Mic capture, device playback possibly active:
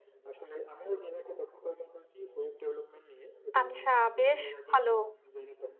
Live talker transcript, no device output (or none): আচ্ছা, বেশ ভালো।